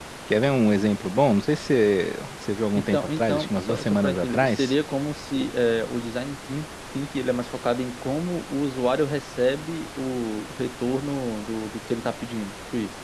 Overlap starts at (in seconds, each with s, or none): 2.8 s